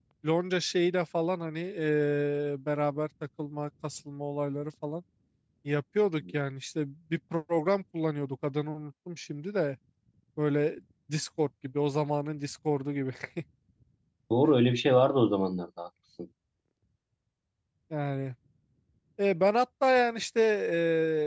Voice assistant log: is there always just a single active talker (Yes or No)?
Yes